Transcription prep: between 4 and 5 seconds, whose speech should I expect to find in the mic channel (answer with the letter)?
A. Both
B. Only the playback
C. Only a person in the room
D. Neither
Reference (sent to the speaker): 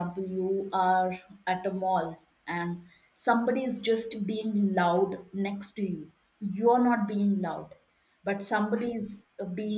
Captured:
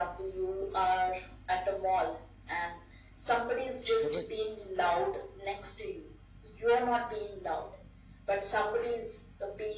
A